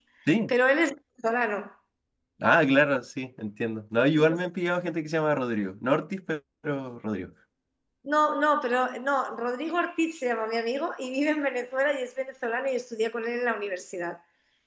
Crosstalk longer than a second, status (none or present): none